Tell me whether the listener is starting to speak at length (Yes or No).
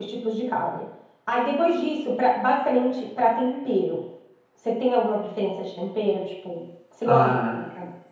Yes